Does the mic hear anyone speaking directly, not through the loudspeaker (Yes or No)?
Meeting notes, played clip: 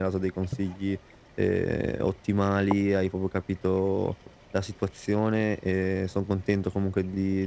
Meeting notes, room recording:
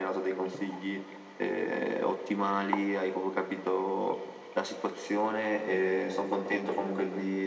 No